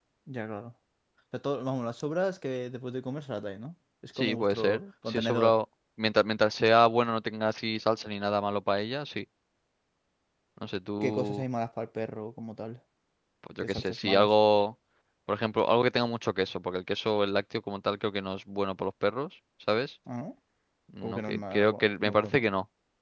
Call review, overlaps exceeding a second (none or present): present